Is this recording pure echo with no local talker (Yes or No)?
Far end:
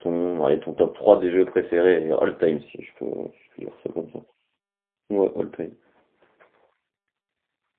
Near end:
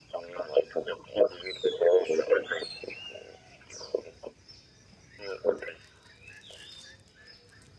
Yes